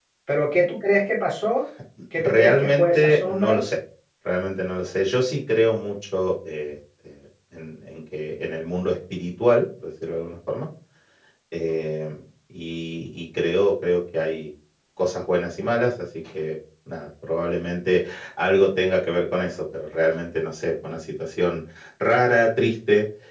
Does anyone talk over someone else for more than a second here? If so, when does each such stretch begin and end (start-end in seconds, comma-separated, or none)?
2.2-3.6